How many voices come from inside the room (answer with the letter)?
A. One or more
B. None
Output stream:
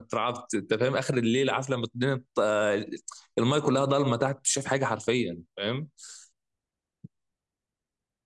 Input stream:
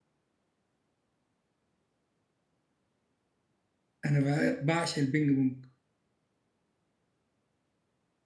A